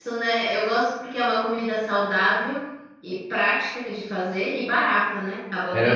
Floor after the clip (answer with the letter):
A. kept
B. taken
B